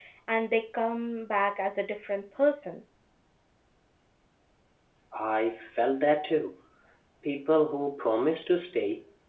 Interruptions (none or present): none